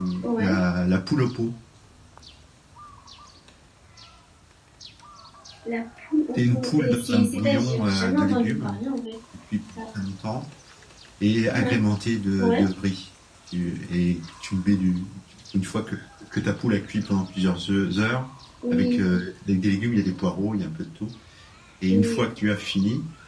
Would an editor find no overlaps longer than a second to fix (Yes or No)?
No